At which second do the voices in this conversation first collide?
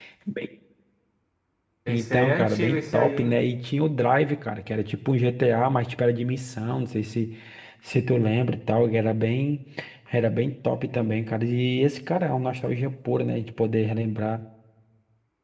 1.9 s

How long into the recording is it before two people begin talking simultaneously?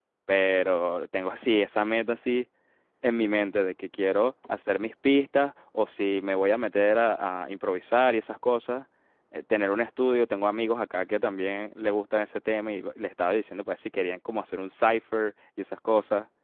none

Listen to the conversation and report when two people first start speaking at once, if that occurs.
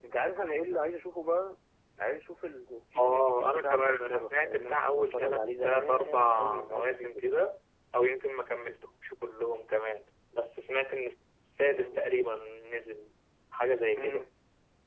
3.0 s

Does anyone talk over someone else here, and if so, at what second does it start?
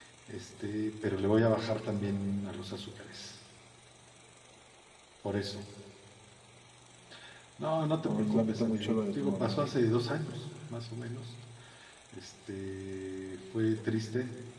8.0 s

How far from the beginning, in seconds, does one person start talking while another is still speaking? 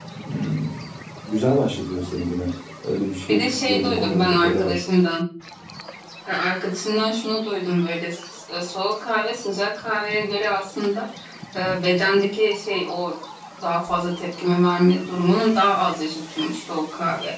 3.3 s

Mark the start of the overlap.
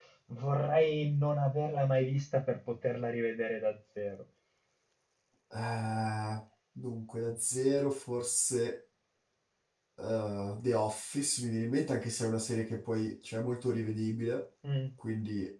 none

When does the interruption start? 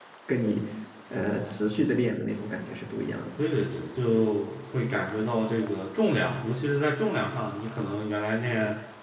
none

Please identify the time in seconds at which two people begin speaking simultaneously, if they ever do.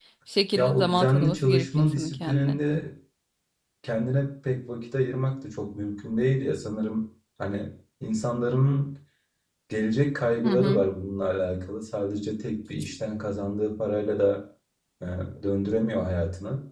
0.6 s

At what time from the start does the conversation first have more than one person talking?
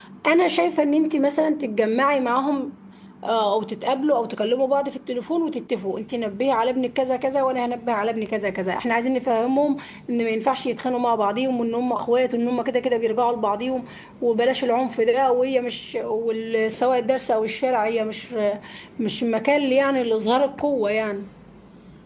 none

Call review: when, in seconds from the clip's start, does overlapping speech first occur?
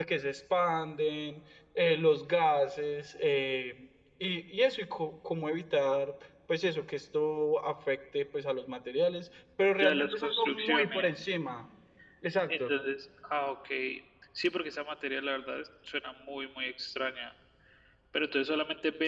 9.8 s

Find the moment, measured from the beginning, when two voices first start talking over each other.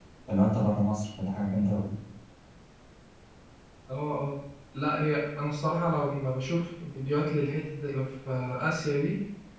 none

